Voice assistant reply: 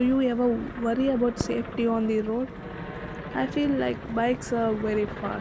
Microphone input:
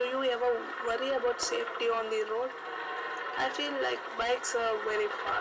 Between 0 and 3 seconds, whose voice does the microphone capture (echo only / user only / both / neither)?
echo only